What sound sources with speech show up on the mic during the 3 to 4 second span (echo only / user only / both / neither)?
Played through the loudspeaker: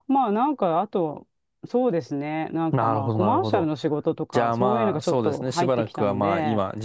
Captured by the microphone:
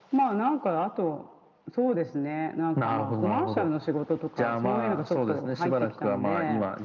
echo only